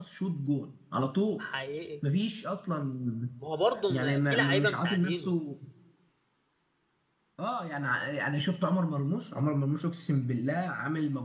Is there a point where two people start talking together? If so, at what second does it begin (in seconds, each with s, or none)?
3.9 s